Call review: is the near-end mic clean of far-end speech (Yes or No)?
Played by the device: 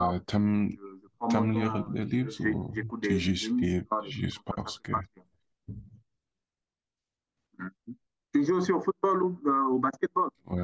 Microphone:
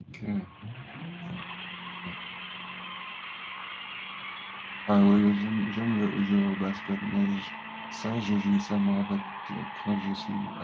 Yes